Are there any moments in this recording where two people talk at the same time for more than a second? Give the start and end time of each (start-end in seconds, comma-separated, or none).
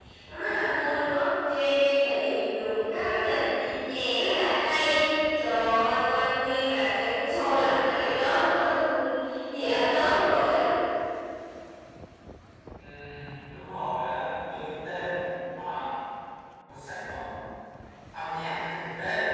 none